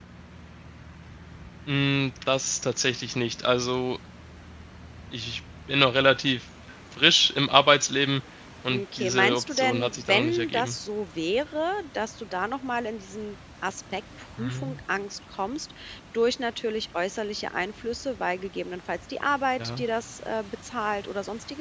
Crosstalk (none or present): present